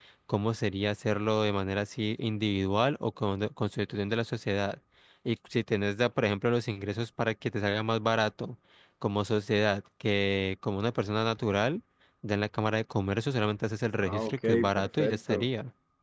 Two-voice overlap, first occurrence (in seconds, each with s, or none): 14.0 s